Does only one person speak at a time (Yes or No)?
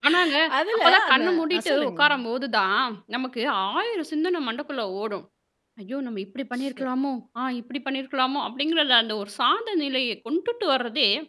No